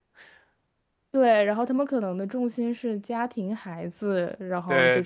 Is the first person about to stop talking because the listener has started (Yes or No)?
Yes